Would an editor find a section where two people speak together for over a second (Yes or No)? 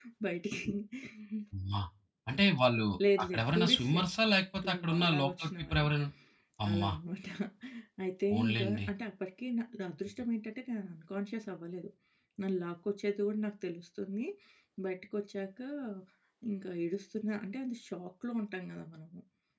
Yes